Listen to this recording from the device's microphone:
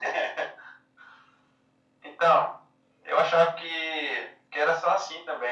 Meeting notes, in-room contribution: none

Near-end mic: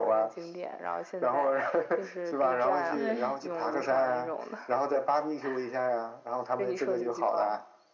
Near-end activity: present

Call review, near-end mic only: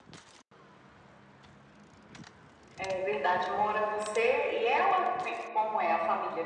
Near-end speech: none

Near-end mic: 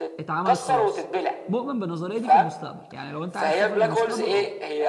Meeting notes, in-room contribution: present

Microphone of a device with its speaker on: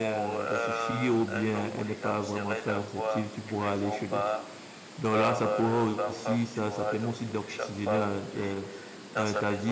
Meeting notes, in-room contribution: present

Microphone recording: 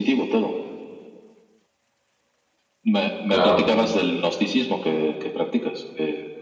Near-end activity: present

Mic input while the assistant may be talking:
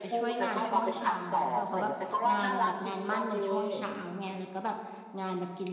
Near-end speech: present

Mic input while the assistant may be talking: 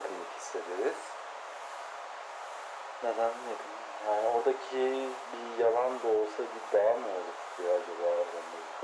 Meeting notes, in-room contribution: none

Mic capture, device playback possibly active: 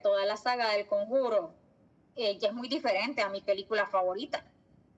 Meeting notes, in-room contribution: none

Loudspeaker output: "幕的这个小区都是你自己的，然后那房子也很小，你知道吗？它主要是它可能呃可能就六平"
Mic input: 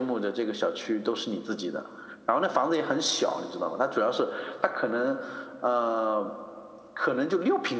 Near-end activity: none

